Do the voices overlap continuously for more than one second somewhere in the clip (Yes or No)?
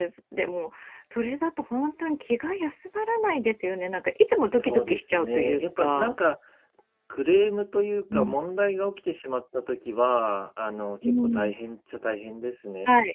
Yes